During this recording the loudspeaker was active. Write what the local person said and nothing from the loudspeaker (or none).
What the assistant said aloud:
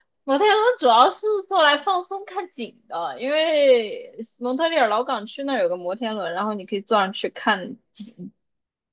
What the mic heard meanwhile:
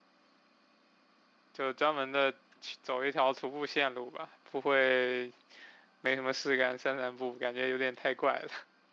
就专门的去走一条徒步线路吧，不会没什么事干散散步，感觉有点太怪了。